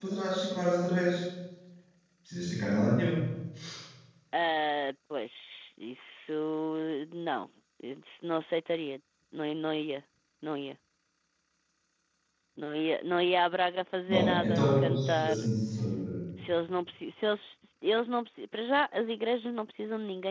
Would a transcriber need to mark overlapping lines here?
Yes, from 14.1 s

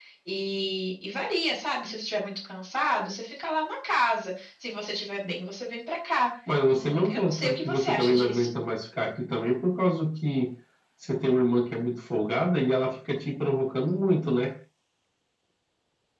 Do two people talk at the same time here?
Yes, from 6.7 s

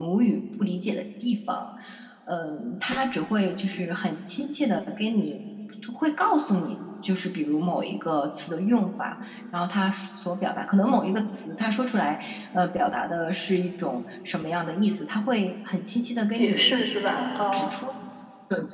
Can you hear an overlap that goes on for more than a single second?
Yes, from 16.3 s

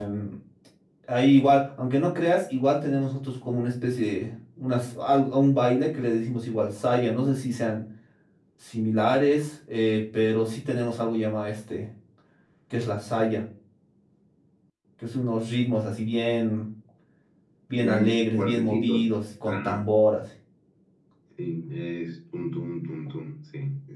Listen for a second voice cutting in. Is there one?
Yes, from 17.7 s

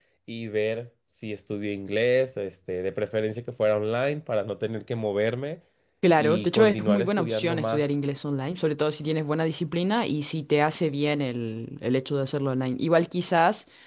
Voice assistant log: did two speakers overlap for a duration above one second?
Yes, from 6.2 s

